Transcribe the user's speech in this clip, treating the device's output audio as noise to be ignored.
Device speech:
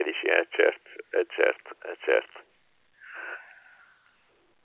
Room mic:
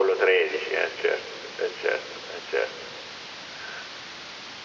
none

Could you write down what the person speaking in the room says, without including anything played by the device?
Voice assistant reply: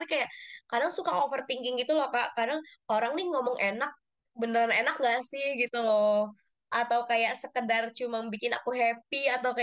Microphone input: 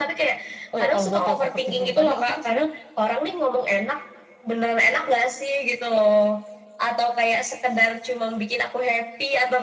Oh ya, kalau buat yang overthinking tadi, aku tuh sebenarnya

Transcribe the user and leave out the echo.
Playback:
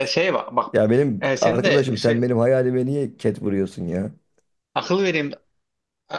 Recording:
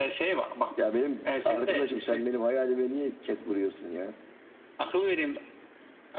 none

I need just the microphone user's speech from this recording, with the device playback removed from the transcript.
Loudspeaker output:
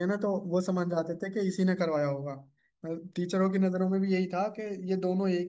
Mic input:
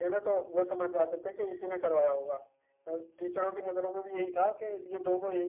none

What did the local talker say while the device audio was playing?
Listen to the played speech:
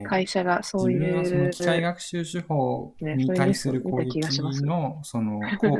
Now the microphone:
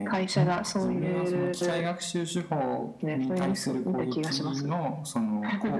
ん

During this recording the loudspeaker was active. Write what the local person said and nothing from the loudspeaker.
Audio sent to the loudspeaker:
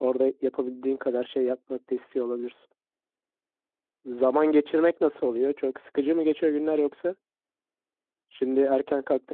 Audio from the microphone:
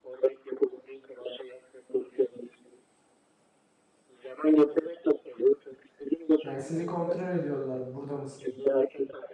Yani sizi kontrol ediyorlar. Burada mısınız?

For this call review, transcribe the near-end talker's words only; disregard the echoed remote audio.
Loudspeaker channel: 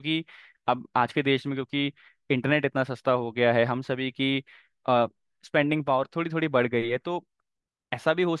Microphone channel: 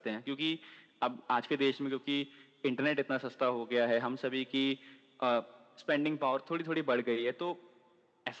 none

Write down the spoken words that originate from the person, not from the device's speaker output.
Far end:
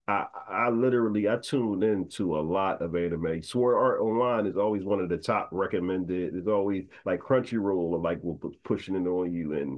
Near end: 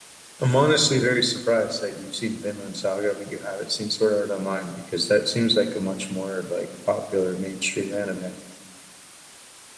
I'm honestly very surprised that you've seen Vinland Saga, but you haven't seen Sword Art Online because that seems like a much more like popular mainstream anime.

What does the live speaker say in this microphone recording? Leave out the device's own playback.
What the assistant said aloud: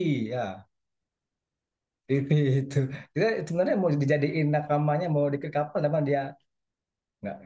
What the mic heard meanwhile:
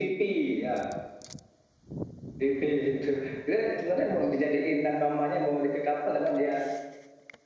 none

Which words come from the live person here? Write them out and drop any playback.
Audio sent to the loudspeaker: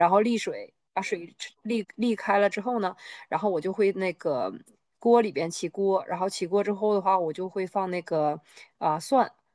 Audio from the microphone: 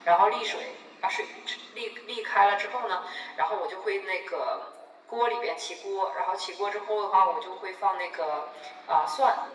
none

